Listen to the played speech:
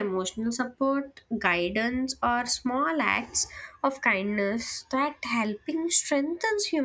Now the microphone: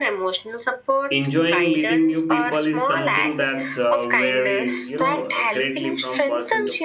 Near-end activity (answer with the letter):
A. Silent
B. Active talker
B